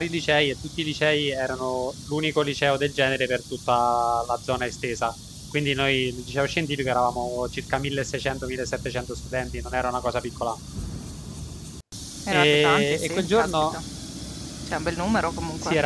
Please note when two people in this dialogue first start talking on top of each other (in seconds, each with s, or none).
12.3 s